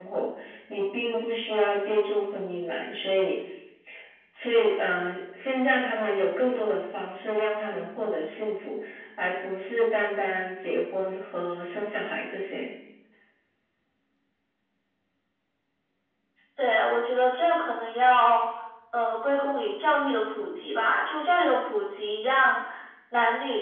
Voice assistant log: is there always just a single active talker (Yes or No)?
Yes